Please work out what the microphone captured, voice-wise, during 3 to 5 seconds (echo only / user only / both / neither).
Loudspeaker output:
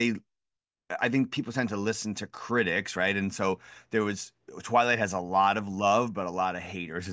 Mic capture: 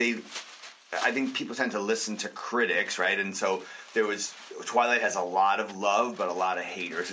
echo only